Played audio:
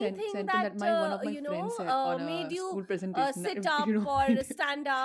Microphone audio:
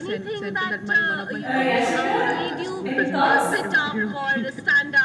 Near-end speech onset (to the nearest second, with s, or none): 1 s